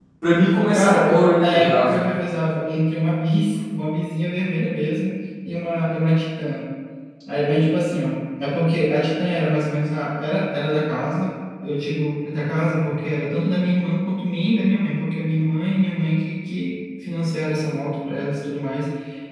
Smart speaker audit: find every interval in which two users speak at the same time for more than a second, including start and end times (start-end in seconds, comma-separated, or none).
0.7-2.0